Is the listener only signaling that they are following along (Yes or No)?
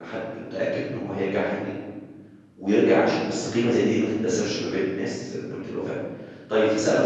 Yes